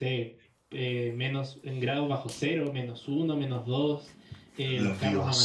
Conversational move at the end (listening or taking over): listening